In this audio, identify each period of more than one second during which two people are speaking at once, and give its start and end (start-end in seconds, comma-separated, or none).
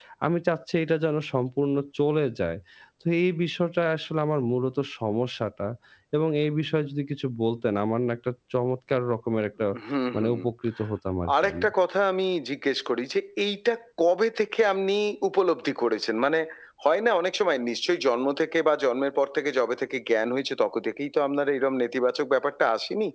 none